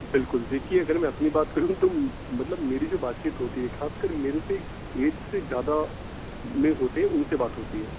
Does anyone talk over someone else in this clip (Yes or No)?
No